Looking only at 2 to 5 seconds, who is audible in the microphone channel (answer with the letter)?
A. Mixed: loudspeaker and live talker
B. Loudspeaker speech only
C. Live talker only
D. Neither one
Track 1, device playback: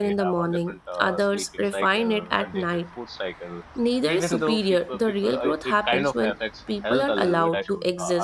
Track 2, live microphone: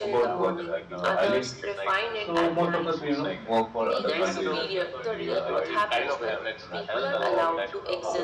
A